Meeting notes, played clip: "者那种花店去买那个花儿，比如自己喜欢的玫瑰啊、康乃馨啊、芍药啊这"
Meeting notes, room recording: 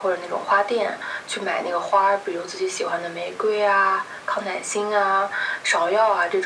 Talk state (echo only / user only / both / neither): echo only